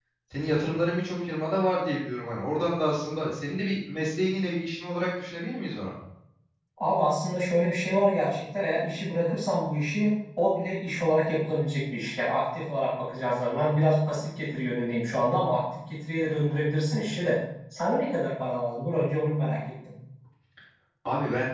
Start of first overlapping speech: none

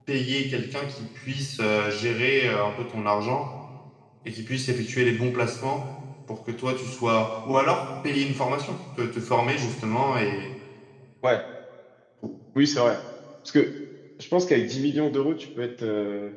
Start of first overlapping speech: none

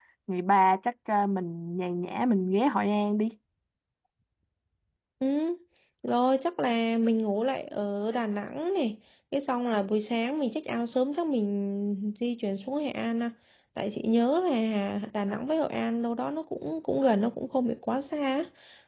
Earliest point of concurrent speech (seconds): none

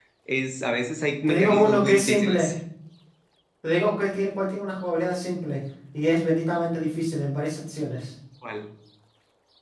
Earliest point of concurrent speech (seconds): 1.3 s

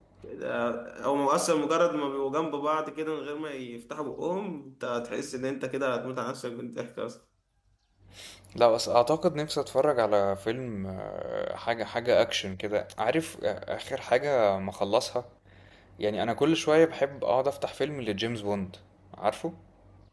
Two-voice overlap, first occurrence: none

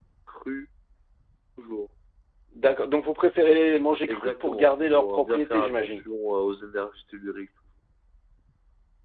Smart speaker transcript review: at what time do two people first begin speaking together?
4.1 s

